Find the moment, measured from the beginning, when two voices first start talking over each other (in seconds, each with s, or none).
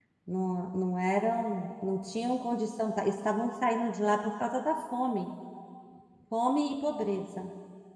none